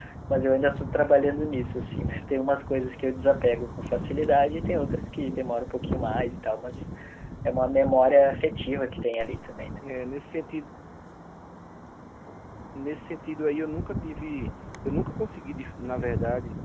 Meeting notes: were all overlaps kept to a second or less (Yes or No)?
Yes